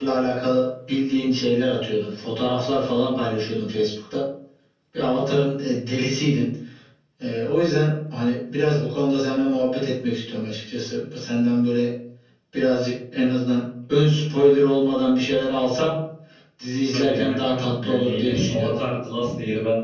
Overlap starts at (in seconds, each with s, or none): 16.9 s